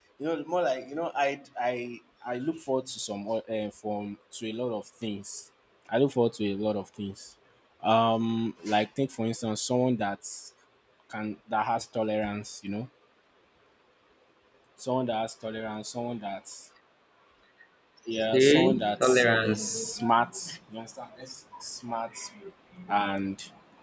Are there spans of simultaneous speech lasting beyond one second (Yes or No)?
Yes